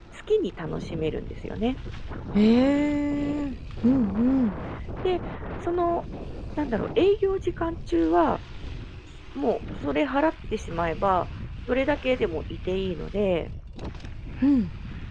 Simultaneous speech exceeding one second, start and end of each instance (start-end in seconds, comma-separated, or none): none